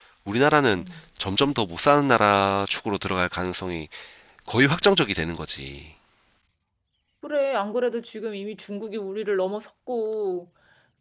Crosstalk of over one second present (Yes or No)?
No